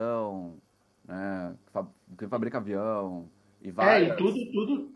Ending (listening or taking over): taking over